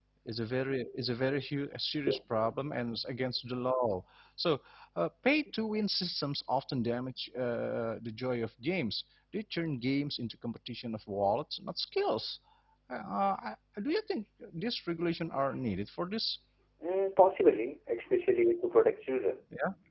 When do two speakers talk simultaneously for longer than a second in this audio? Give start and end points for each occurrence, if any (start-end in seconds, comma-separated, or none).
none